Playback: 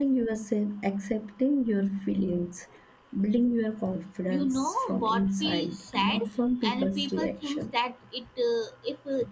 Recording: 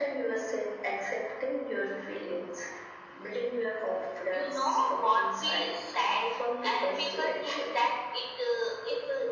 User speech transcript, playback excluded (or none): none